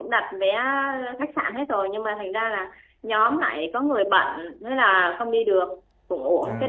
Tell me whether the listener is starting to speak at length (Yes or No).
No